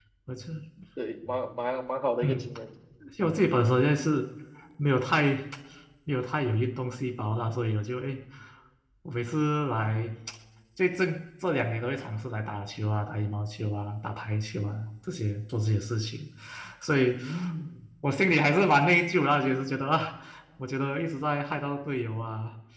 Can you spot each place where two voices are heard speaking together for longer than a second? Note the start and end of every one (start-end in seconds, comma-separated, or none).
none